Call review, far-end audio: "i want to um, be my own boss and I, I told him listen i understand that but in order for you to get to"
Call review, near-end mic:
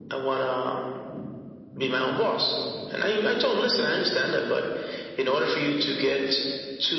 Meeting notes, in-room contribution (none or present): none